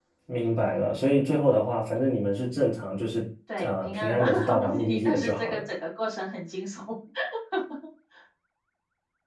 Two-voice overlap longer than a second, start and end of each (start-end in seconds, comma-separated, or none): 3.6-5.6